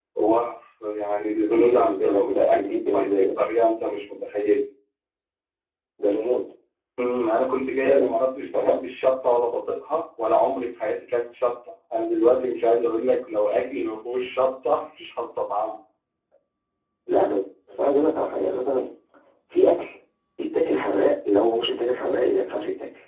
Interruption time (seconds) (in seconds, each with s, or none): 1.5 s